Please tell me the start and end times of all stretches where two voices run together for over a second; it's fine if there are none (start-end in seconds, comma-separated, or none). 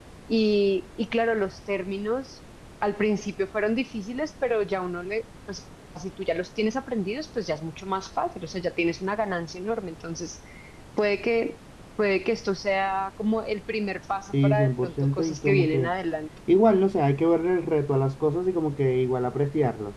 14.4-15.9